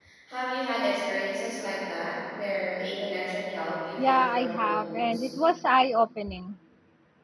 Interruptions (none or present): present